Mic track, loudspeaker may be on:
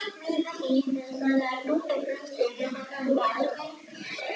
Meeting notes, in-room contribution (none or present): none